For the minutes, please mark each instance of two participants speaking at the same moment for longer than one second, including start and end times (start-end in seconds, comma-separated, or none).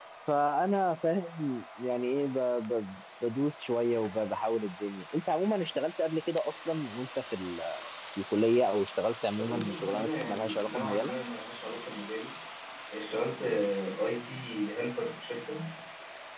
9.2-11.1